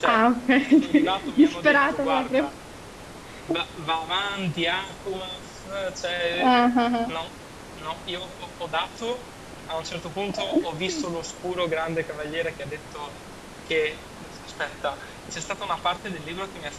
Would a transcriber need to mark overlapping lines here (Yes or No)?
Yes